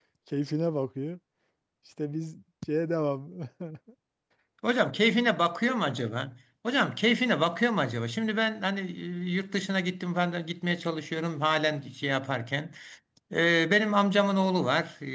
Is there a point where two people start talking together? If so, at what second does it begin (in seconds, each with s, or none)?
none